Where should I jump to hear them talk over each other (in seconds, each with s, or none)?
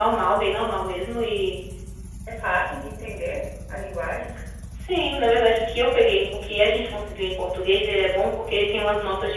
none